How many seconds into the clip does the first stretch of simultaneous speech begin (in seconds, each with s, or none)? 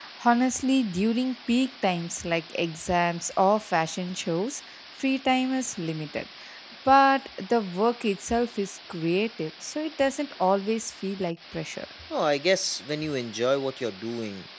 none